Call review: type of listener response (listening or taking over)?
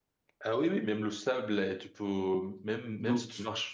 listening